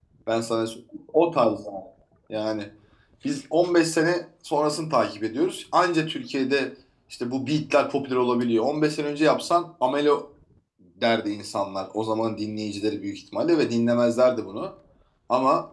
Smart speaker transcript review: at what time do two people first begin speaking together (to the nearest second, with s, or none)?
none